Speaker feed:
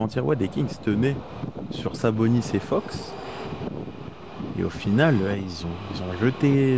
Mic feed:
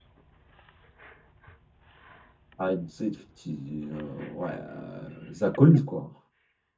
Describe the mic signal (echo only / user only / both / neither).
user only